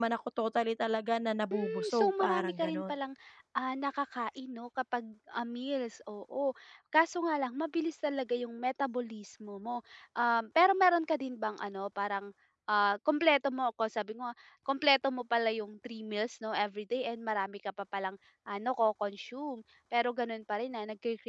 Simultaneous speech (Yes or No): Yes